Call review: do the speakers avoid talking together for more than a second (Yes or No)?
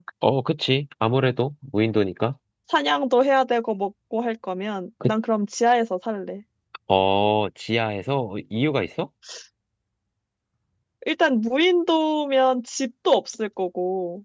Yes